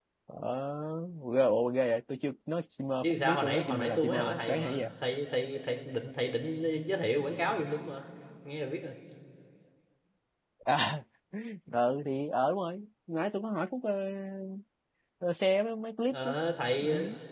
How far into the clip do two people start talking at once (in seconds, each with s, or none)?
3.0 s